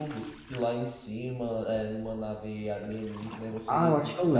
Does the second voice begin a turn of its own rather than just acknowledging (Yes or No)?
Yes